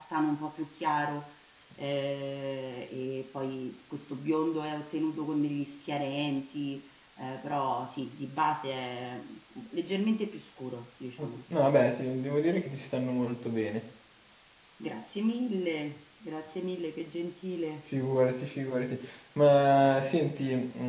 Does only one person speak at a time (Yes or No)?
Yes